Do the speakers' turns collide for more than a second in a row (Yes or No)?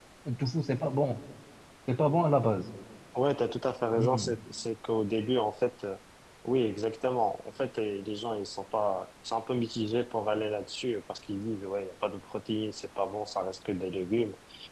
No